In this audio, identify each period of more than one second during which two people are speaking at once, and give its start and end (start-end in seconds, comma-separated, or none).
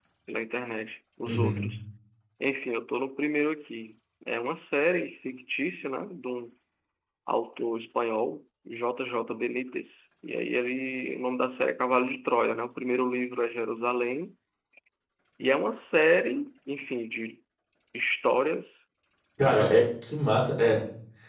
none